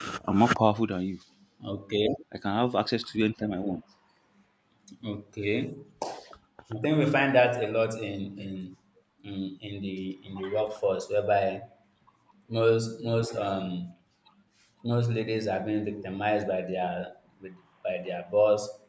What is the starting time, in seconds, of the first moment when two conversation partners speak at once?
none

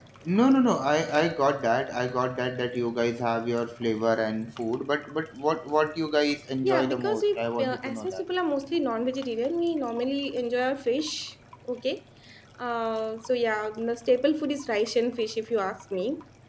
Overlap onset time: 6.6 s

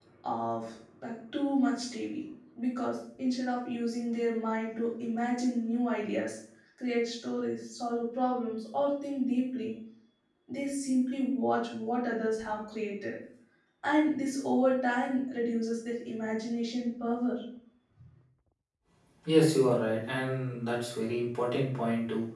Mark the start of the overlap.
none

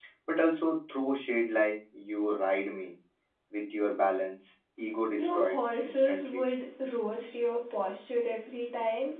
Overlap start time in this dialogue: 5.2 s

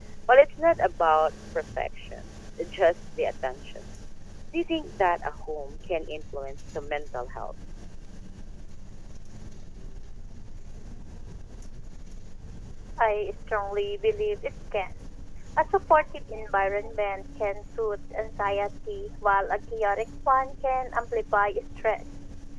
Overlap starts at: none

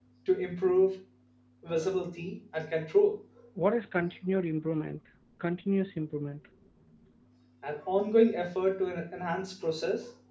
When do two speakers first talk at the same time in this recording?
none

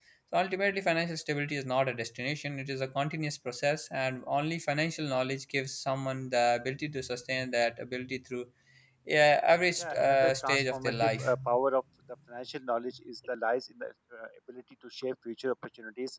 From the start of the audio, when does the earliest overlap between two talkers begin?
9.8 s

